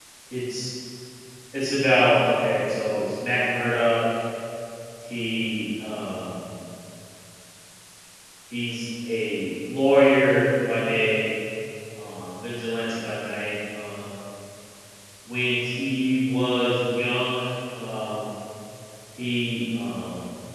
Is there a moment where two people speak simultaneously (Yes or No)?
No